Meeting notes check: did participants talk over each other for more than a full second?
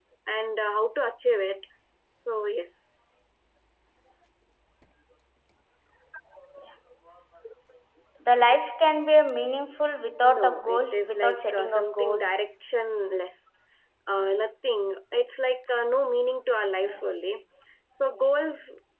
Yes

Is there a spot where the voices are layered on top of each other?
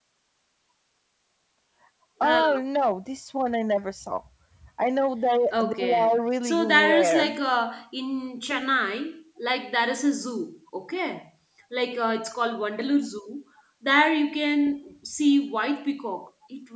Yes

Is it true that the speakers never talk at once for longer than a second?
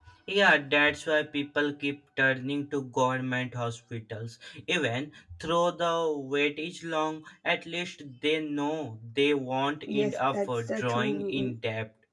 No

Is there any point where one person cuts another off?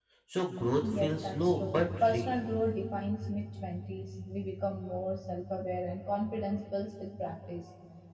Yes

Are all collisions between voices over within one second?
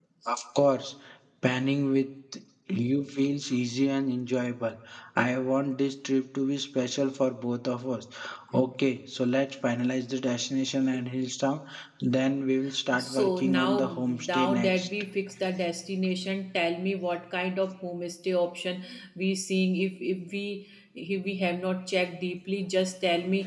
No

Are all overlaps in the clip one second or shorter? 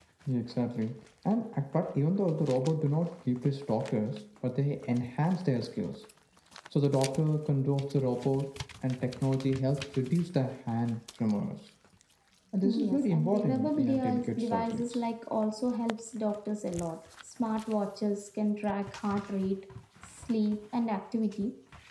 No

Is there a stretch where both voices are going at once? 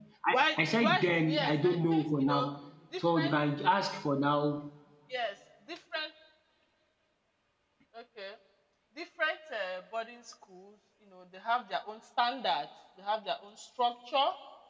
Yes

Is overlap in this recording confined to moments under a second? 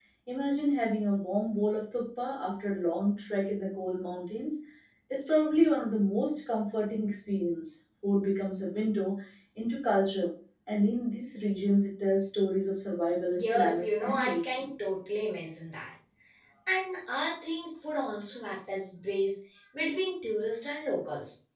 No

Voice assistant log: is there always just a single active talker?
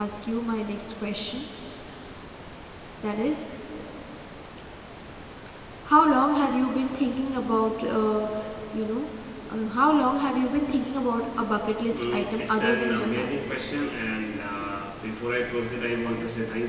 No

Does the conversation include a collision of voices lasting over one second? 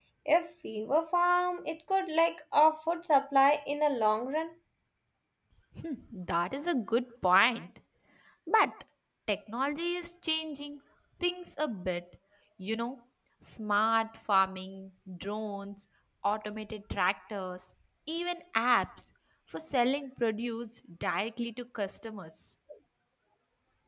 No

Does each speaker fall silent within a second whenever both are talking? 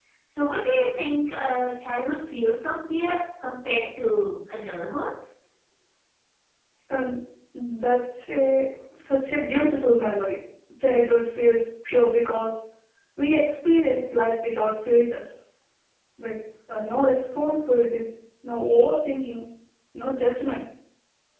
Yes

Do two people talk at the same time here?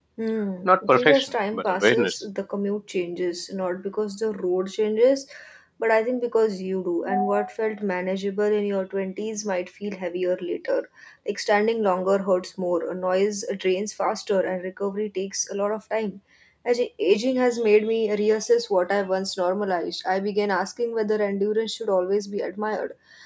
Yes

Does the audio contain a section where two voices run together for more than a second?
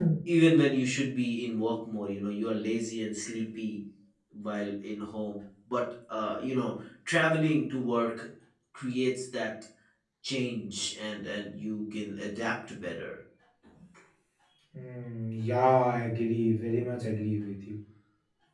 No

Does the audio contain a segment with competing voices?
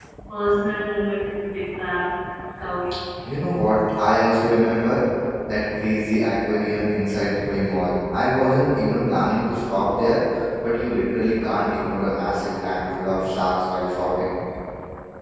No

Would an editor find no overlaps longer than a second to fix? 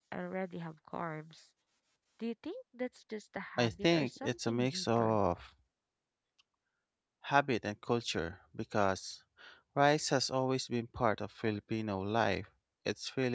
No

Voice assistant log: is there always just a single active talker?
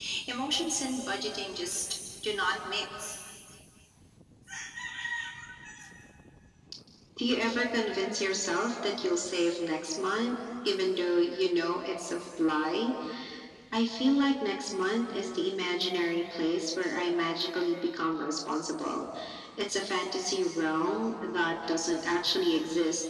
Yes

